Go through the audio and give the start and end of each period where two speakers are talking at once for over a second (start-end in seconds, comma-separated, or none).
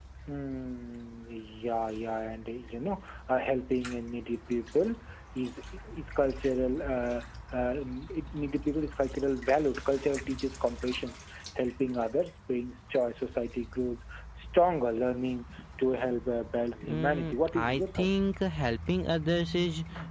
16.8-18.1